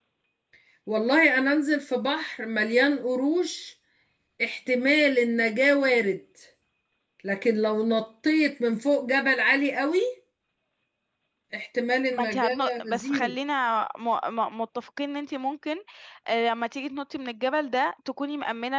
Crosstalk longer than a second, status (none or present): present